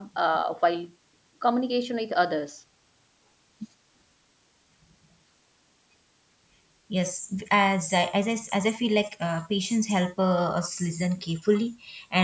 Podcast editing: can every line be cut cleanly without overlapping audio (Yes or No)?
Yes